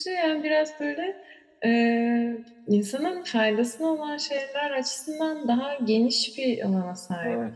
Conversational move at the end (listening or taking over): taking over